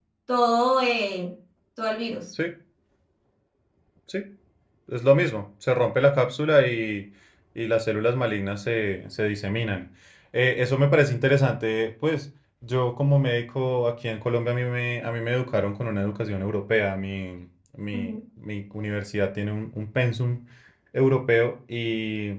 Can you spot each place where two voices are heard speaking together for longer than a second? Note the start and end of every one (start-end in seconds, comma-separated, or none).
none